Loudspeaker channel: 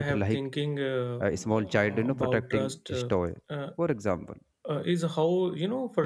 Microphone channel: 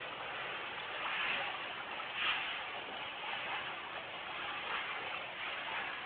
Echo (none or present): none